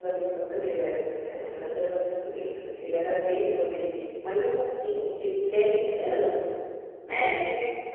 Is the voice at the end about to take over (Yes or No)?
No